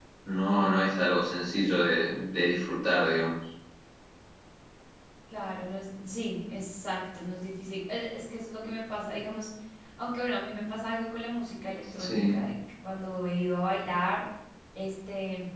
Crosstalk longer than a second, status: none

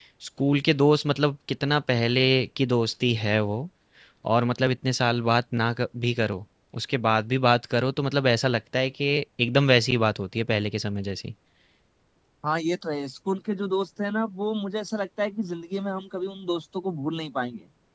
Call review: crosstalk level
none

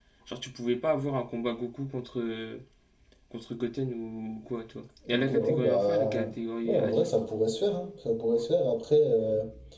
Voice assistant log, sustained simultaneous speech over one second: present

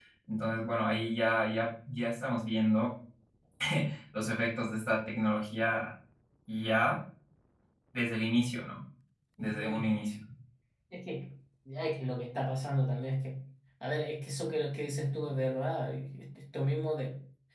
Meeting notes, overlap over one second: none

